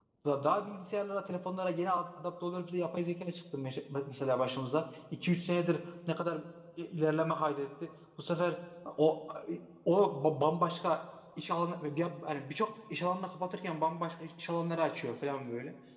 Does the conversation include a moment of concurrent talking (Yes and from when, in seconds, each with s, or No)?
No